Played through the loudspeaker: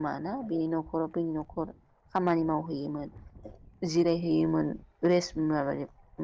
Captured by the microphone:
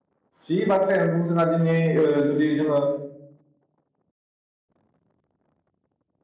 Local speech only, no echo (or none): जि बाथ्रायानो बुं जोंहा दिनै ओ जुदि जोङो